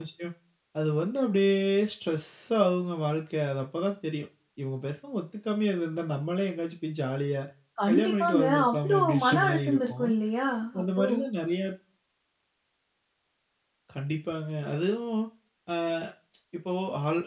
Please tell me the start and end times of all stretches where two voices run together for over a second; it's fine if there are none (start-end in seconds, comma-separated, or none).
7.9-10.1